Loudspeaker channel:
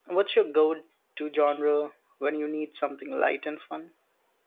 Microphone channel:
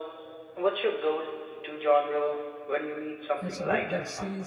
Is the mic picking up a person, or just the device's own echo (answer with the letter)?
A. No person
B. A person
B